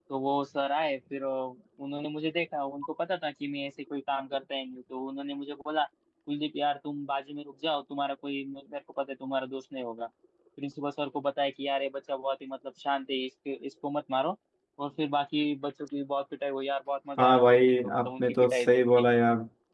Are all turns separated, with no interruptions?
No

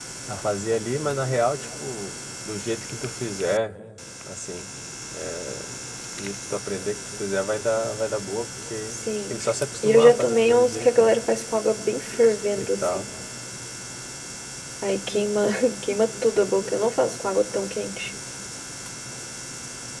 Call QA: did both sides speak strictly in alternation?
No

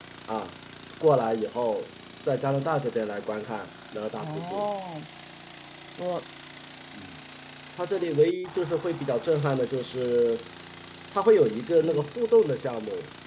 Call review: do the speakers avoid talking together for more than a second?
Yes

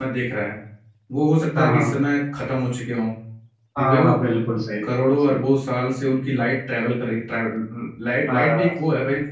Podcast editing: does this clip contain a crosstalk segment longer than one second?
No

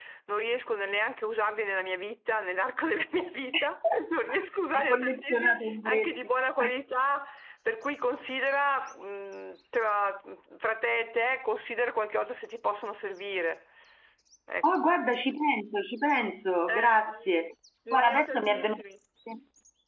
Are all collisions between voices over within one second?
No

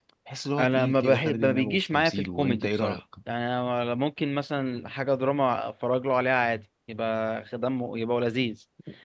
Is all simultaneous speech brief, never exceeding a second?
No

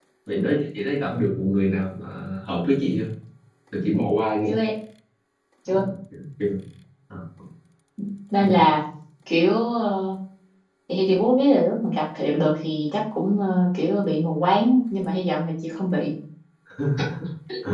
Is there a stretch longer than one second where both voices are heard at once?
No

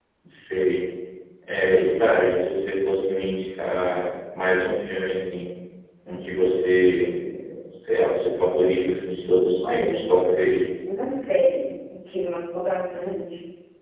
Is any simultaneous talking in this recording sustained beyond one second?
No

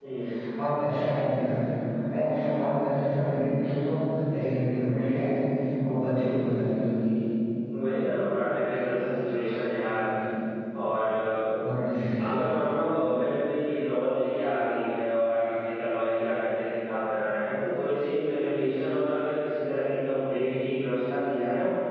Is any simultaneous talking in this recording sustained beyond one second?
No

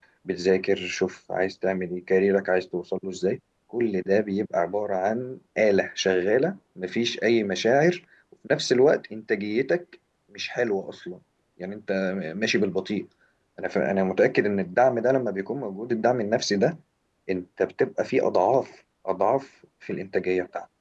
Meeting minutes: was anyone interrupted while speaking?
No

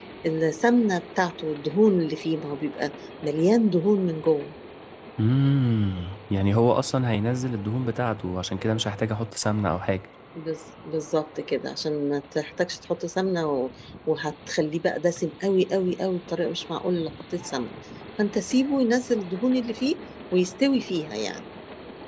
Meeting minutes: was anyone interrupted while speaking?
No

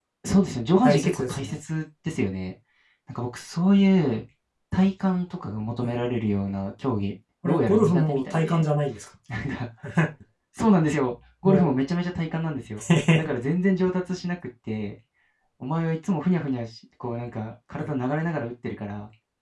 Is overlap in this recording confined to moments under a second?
No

